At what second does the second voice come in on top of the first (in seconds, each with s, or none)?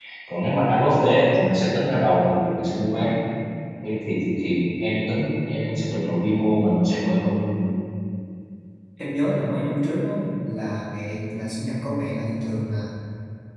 none